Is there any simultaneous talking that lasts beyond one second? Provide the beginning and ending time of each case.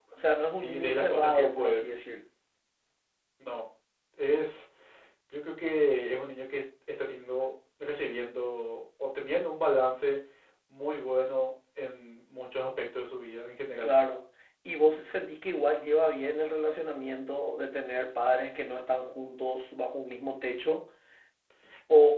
0.6-1.8

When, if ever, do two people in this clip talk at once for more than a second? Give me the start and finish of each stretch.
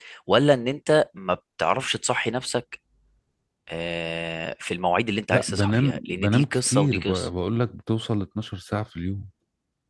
5.3-7.3

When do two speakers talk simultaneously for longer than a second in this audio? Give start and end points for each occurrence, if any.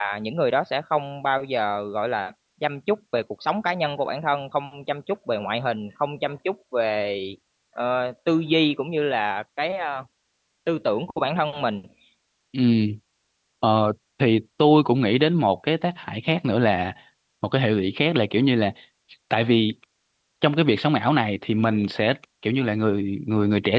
none

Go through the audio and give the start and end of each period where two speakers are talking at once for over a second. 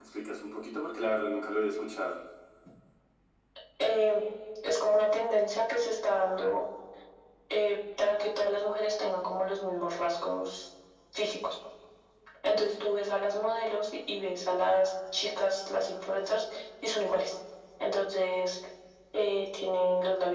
none

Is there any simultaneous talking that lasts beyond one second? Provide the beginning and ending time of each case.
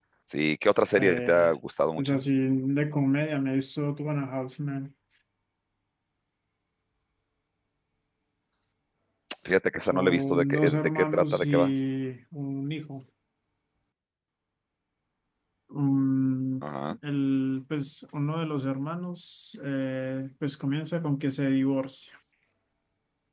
9.8-11.7

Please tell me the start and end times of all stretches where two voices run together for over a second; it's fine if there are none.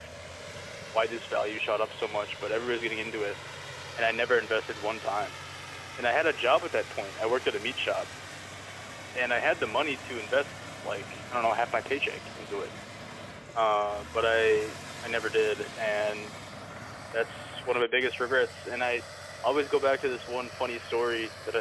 none

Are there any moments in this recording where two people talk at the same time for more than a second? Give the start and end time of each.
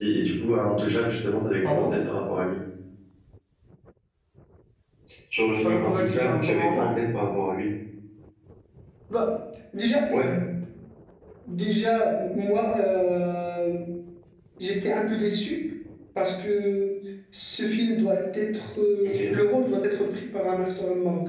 5.6-6.9

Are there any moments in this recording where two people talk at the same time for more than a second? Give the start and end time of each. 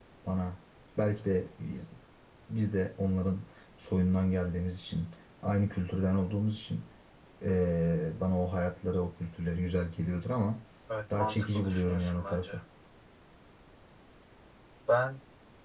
11.2-12.4

